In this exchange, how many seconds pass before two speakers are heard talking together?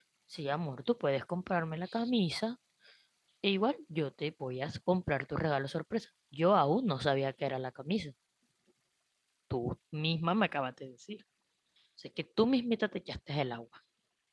none

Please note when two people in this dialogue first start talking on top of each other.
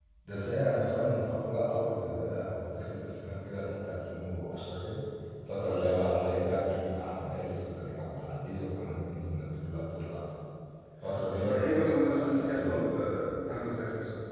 11.3 s

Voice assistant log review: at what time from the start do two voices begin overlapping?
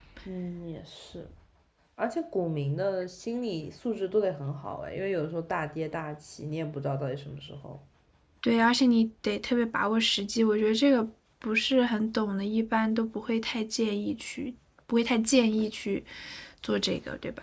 none

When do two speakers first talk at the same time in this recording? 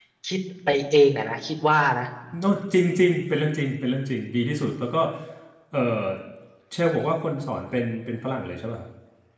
none

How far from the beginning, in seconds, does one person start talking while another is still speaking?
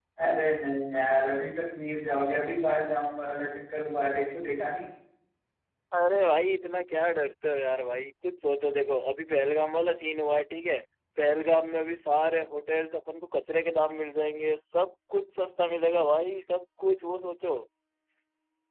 none

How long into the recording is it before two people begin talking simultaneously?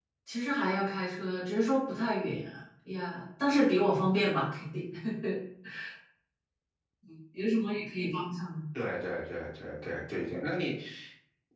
none

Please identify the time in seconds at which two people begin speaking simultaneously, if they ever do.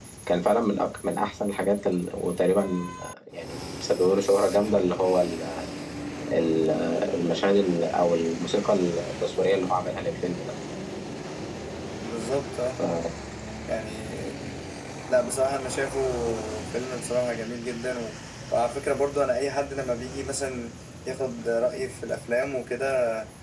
none

